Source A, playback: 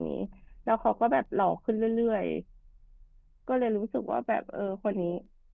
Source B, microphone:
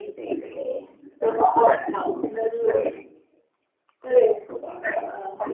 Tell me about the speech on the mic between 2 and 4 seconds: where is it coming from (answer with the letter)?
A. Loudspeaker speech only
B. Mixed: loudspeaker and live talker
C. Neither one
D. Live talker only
A